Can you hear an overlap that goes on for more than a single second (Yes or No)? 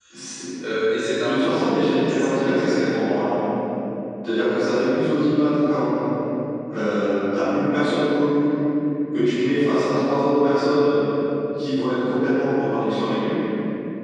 Yes